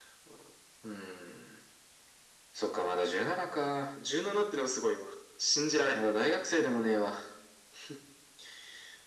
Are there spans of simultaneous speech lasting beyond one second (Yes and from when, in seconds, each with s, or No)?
No